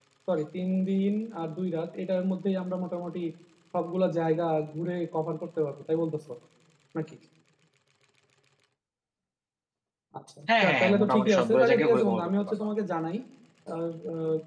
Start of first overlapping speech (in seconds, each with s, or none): 10.6 s